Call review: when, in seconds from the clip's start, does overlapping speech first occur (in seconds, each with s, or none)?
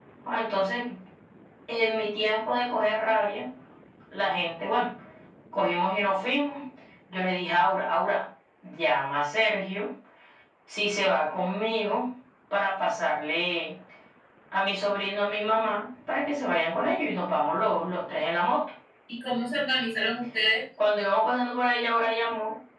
none